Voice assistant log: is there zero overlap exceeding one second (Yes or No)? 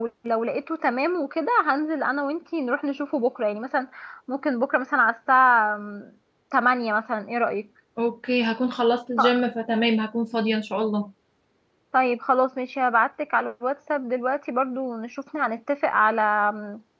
Yes